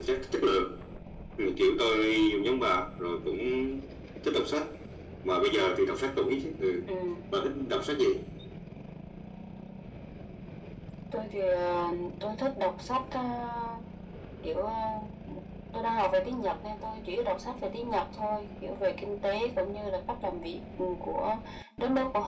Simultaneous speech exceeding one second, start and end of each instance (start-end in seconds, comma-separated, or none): none